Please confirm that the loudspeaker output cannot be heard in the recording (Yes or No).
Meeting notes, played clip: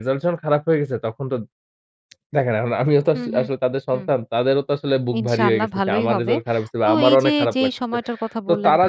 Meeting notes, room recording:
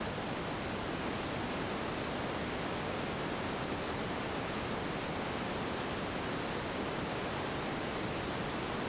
Yes